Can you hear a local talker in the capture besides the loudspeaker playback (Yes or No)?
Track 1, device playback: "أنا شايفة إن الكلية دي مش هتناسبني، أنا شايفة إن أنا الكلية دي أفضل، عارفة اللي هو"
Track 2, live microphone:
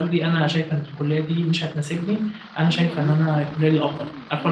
Yes